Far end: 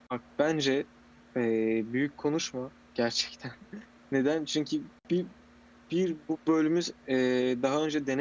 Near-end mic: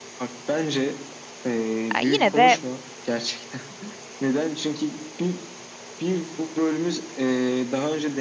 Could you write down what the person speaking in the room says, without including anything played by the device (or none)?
Ya yine de